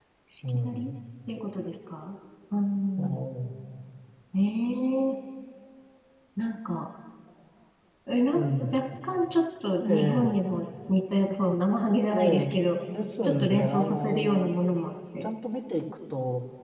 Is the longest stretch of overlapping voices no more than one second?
No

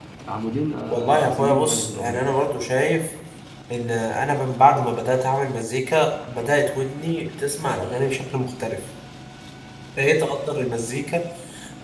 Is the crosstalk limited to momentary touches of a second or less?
No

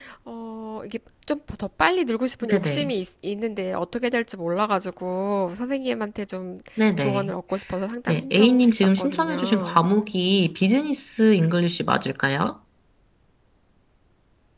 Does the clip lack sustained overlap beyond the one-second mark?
No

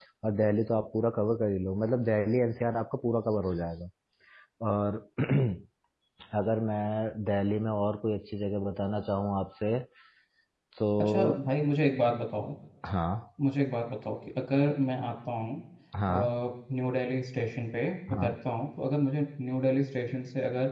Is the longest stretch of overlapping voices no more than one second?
Yes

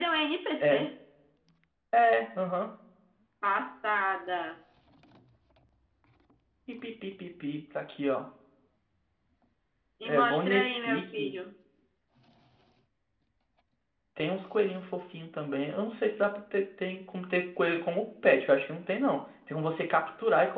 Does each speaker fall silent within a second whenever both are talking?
No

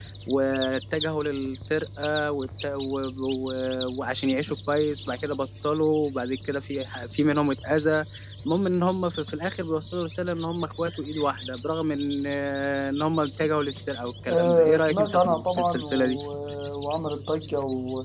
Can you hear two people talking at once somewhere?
Yes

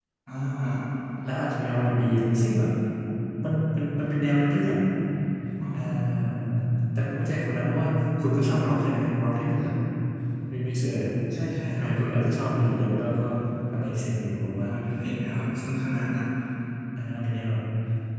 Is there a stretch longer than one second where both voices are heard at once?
No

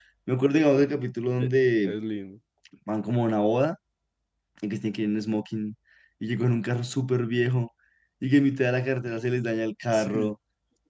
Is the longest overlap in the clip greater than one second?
No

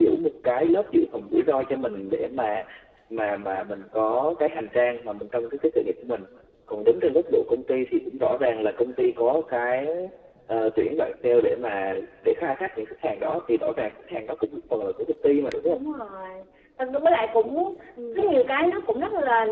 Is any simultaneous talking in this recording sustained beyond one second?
No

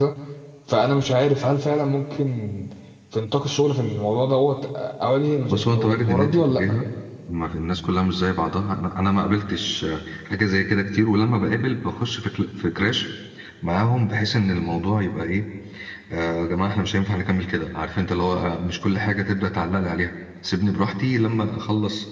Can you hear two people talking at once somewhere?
Yes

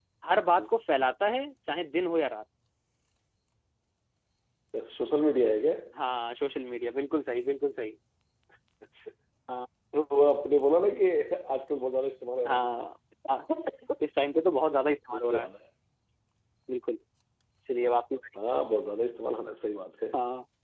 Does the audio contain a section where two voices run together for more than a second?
No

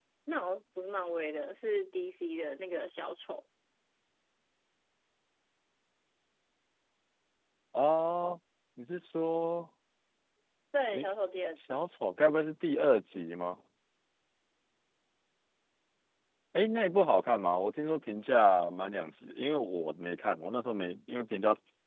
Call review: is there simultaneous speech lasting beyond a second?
No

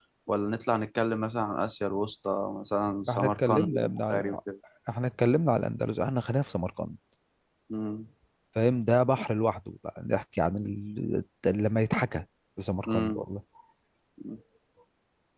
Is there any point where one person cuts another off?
Yes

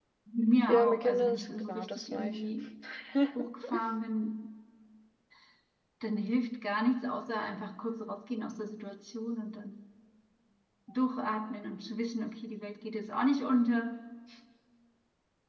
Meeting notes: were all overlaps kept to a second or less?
No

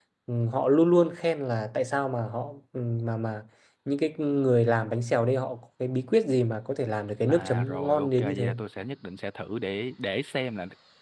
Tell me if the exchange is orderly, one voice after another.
No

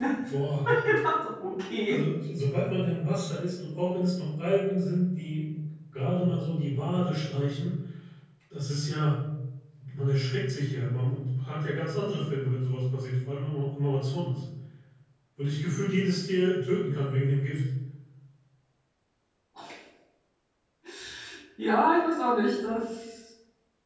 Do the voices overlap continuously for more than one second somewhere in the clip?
No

